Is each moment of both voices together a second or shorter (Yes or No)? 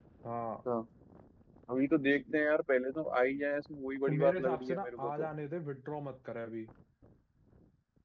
No